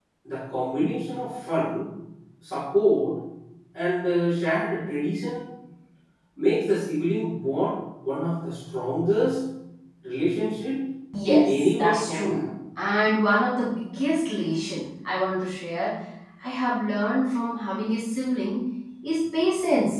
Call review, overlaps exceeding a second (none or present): present